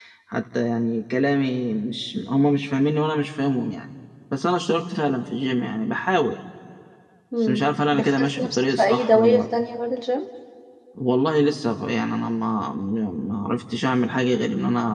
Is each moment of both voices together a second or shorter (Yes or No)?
No